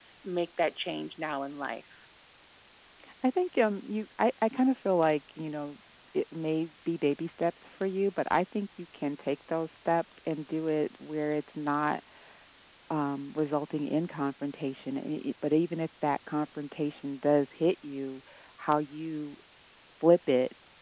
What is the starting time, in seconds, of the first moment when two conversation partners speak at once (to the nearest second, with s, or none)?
none